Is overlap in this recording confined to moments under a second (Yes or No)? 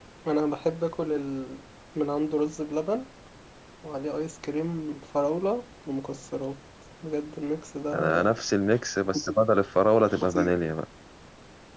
Yes